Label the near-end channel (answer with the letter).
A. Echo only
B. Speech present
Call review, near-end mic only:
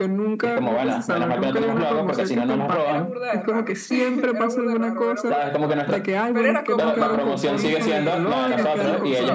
B